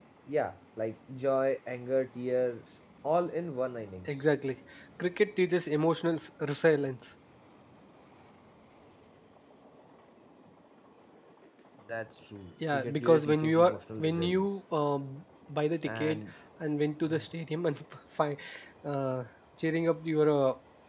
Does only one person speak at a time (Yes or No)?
No